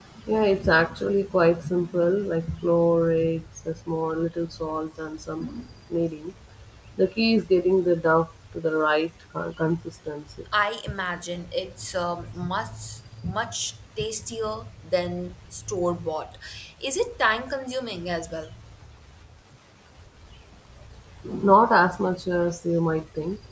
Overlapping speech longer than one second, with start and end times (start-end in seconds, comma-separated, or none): none